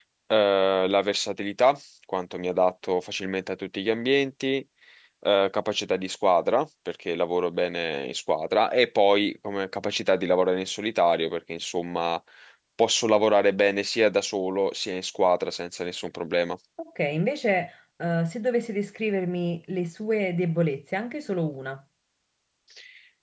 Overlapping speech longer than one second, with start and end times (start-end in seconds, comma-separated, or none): none